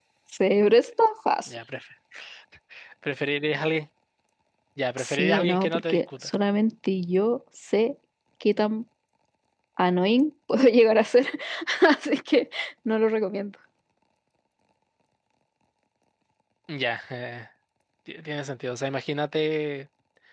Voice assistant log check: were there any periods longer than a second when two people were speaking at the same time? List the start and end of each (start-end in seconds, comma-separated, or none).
5.0-6.3